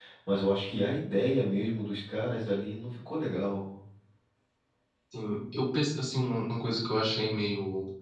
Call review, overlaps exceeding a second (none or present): none